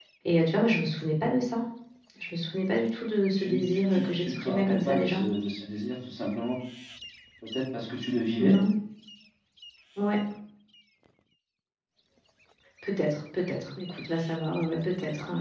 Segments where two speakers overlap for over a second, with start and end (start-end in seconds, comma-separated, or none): 3.4-5.2